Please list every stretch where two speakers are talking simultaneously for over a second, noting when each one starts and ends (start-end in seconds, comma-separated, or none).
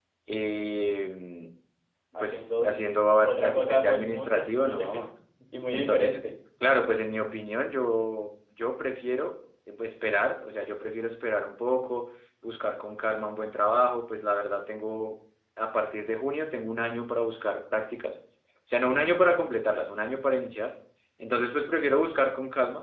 3.2-4.8